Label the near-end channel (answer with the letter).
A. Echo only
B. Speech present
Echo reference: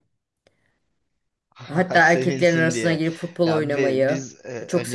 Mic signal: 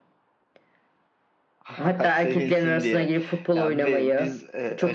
A